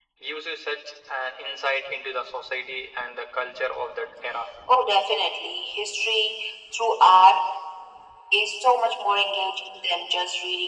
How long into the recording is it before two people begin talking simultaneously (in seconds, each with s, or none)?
none